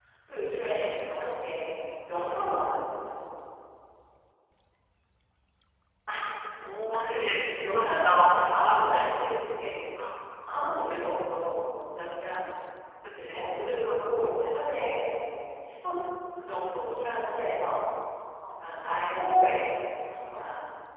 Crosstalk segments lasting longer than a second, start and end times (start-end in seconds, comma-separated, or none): 6.9-9.0